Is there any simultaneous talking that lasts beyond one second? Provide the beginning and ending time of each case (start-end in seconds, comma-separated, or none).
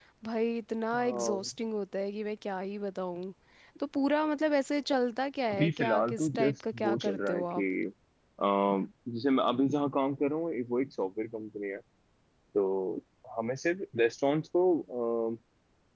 5.5-7.6